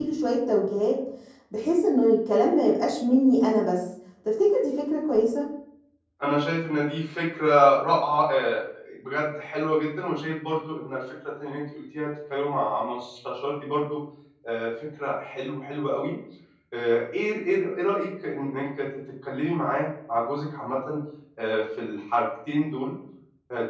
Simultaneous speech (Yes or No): No